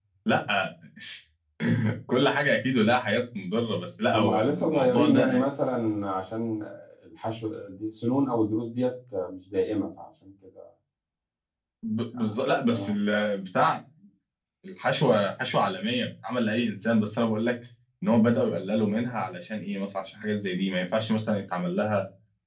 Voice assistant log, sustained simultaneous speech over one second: present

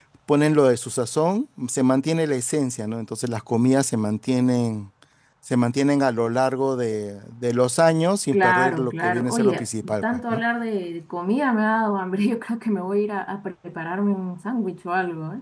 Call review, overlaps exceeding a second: present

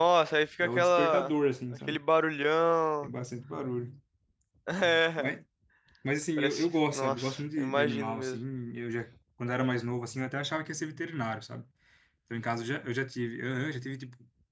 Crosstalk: present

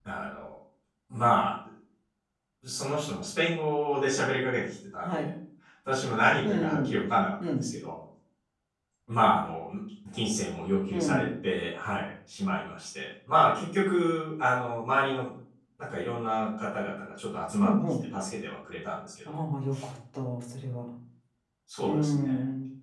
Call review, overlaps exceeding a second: none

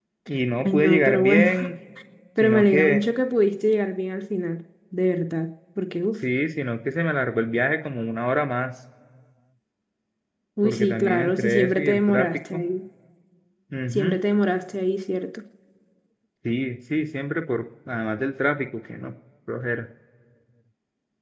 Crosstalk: present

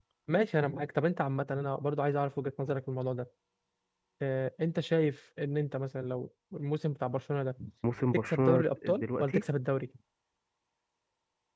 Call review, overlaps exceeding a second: present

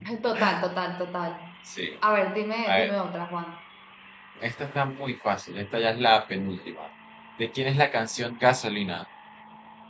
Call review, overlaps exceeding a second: none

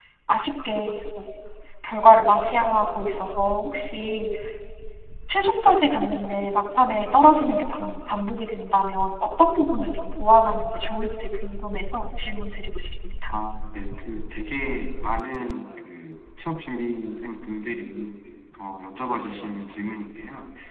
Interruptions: none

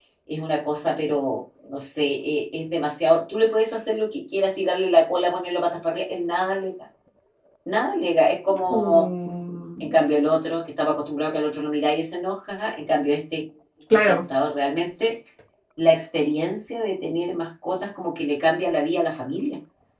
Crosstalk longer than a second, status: none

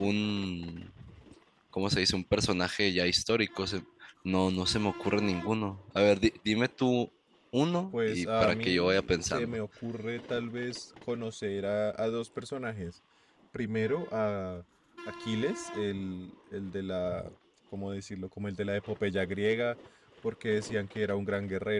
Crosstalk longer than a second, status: present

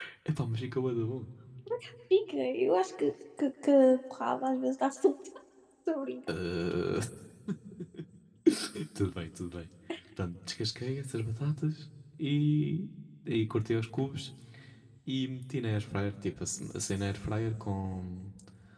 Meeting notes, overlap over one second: none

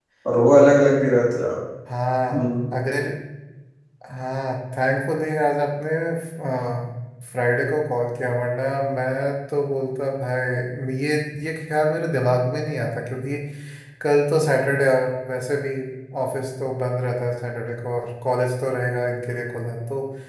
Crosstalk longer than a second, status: none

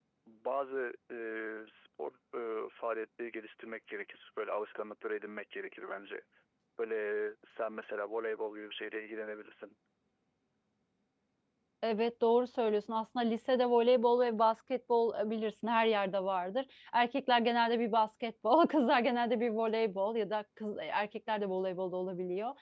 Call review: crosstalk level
none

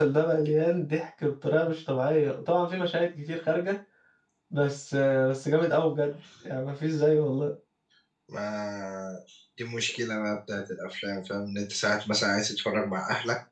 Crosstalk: none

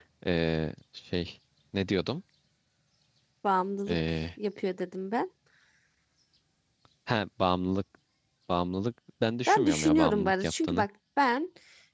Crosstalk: present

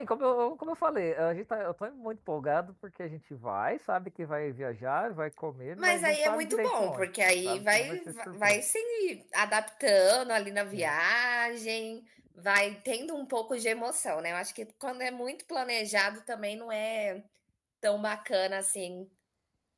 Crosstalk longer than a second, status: present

